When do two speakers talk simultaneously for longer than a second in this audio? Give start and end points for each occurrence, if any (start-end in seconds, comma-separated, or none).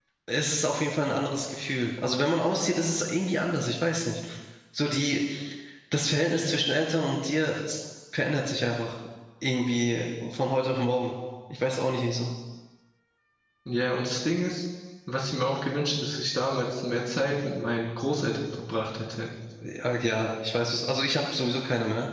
none